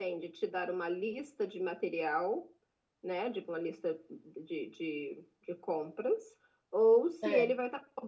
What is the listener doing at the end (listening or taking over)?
listening